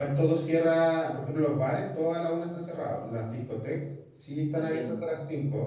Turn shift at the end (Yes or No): No